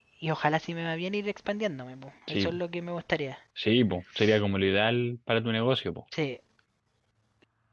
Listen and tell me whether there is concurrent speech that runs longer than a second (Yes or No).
No